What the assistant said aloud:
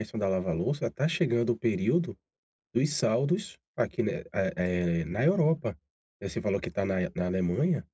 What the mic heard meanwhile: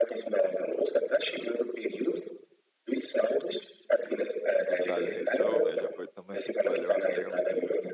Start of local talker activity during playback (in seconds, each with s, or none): 4.6 s